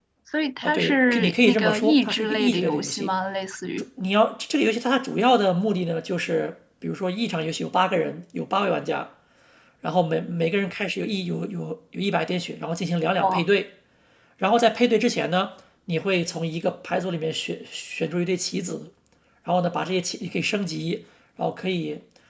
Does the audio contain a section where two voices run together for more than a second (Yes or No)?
Yes